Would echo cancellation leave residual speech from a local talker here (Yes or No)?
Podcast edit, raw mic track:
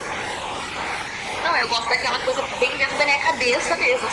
No